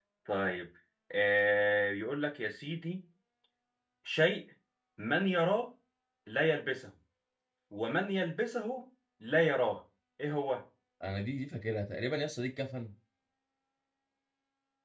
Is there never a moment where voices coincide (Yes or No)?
Yes